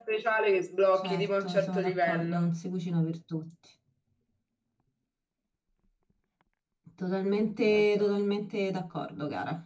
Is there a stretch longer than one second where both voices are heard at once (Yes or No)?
Yes